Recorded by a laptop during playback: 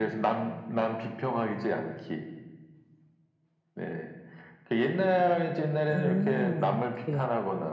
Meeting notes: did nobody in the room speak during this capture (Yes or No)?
No